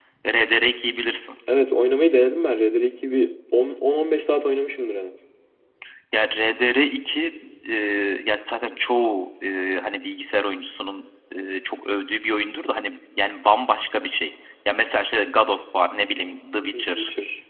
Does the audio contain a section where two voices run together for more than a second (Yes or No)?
No